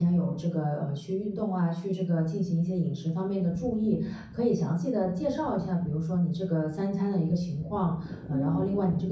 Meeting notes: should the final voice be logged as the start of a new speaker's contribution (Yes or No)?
No